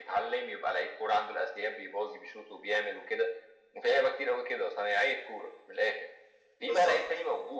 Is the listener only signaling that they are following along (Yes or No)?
Yes